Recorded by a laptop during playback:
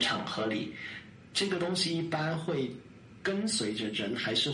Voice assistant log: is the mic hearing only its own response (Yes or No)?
Yes